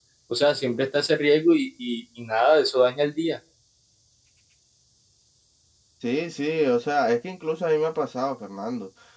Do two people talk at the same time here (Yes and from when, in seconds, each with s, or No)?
No